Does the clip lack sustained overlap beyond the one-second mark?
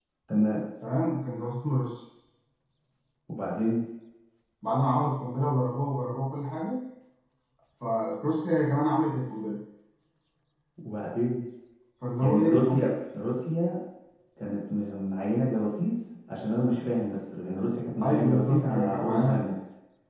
No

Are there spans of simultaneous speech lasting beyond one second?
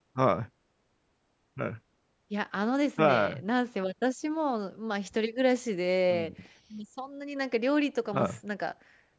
No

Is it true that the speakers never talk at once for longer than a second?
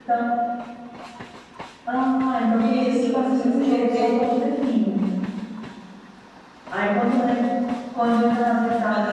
No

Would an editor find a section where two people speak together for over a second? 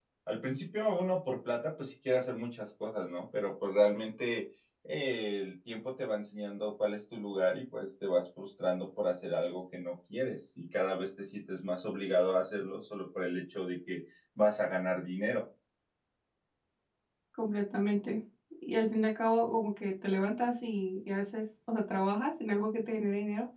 No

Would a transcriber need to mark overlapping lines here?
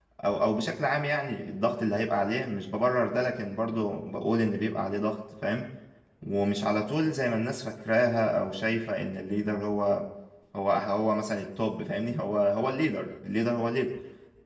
No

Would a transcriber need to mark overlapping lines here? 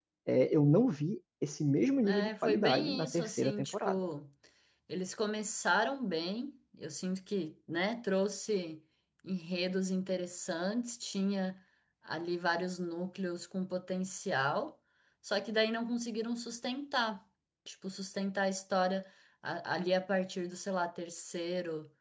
Yes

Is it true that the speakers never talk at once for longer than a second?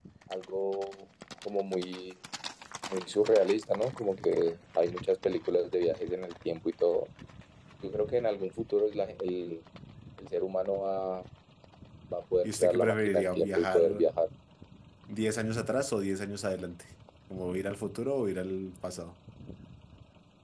No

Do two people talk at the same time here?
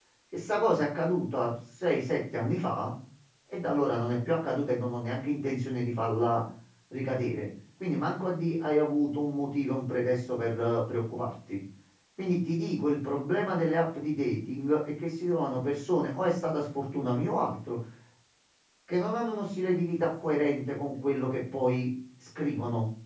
No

